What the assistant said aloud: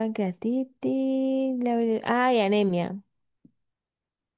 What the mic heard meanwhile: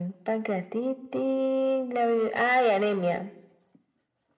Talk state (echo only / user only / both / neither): echo only